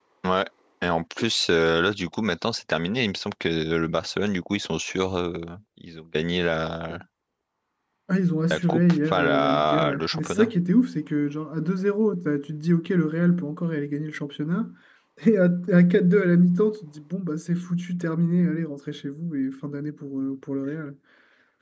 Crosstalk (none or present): present